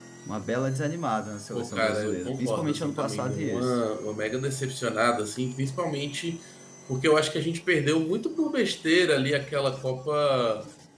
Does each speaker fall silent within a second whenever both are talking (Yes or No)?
No